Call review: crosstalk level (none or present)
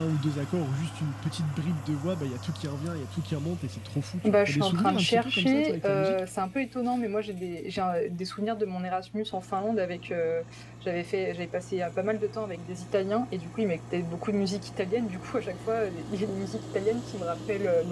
present